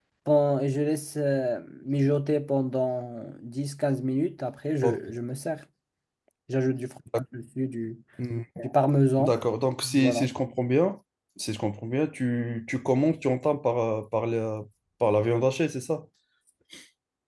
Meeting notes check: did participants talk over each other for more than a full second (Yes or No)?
No